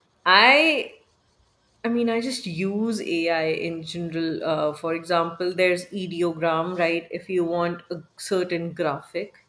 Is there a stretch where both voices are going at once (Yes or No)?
No